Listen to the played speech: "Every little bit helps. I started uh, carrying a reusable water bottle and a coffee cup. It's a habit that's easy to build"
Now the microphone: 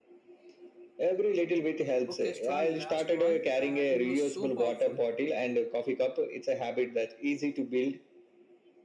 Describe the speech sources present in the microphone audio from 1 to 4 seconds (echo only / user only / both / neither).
both